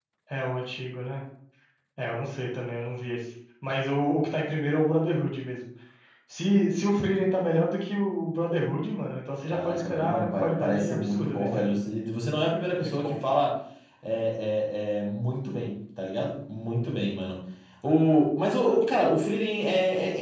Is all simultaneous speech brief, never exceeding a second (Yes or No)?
No